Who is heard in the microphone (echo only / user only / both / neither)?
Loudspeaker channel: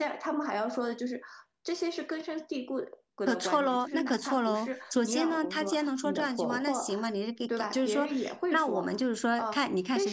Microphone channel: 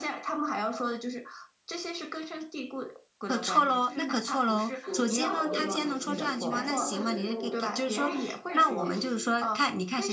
both